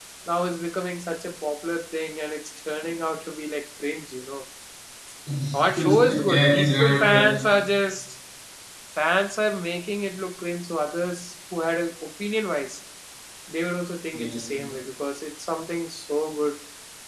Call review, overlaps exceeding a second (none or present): present